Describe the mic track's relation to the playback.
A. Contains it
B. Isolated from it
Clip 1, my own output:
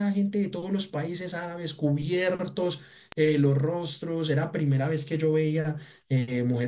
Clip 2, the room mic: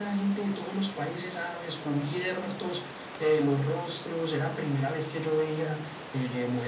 A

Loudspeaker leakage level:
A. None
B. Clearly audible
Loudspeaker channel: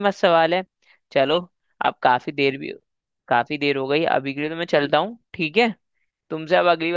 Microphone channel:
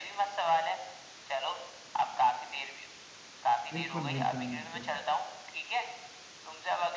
B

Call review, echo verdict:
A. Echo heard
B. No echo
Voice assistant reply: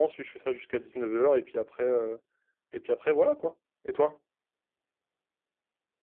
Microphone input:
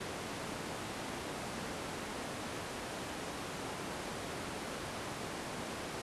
B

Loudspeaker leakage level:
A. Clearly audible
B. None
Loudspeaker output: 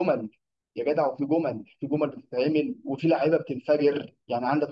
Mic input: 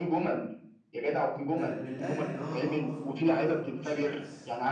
A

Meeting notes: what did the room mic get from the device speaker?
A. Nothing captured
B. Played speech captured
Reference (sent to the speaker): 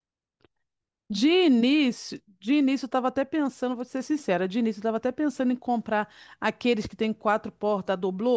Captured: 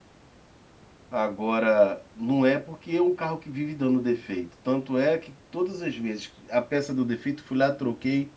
A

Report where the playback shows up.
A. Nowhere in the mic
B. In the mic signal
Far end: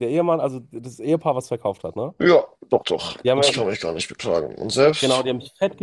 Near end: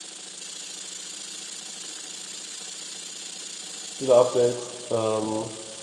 A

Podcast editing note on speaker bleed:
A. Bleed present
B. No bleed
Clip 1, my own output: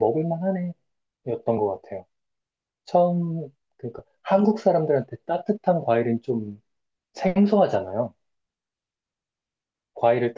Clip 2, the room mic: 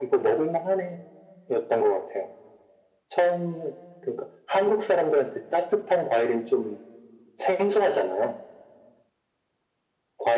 A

